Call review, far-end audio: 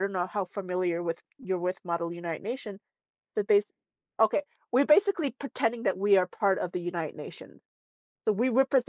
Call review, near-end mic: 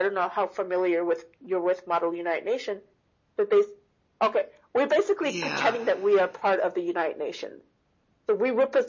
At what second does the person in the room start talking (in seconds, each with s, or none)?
5.2 s